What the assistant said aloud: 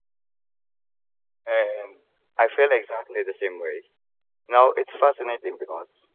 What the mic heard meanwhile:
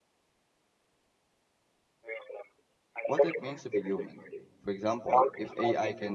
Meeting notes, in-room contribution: present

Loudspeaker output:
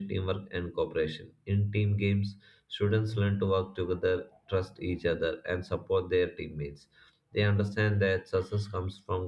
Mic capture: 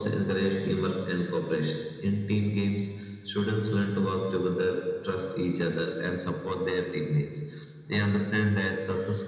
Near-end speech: none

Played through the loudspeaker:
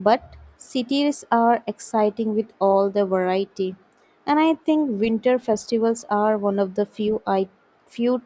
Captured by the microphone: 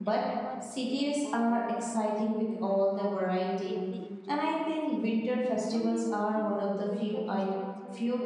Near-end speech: present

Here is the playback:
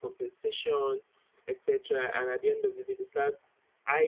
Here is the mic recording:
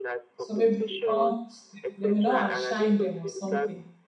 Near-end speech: present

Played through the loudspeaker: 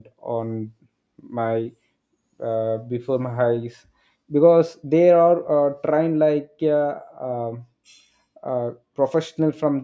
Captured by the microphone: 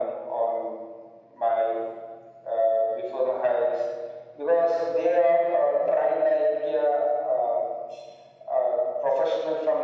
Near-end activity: none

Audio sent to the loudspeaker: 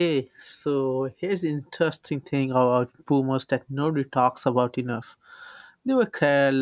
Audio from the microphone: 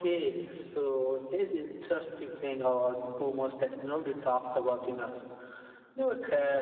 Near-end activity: none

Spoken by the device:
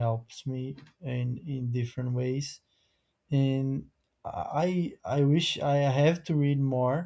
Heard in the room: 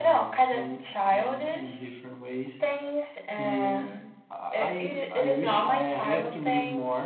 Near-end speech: present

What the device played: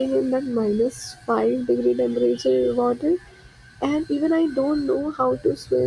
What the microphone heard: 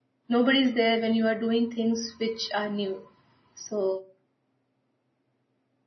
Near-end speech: present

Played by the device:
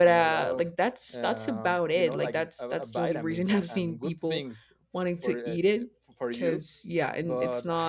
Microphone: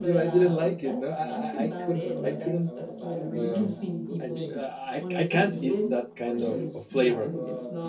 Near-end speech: present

